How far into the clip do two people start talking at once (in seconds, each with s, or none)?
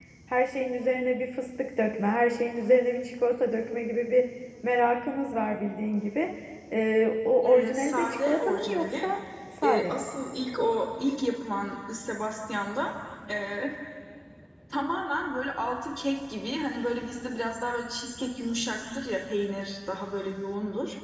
7.4 s